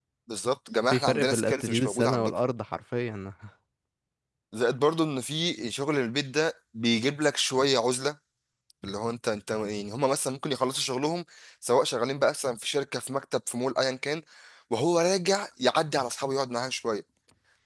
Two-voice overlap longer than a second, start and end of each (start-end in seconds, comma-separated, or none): 0.9-2.4